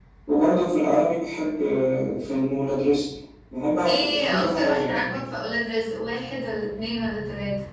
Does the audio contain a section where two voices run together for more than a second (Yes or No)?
Yes